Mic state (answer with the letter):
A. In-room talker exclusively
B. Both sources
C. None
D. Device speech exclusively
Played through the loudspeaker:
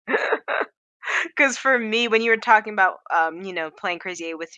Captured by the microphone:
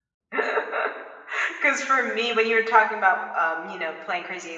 D